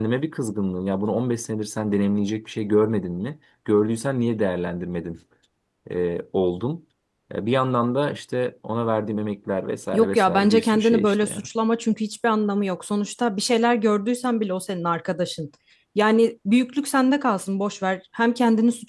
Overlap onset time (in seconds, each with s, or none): 9.9 s